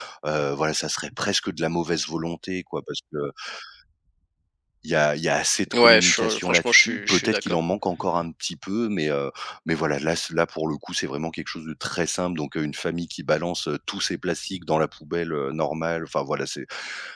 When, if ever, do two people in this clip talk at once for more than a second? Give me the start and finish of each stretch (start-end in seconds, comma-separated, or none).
5.7-7.6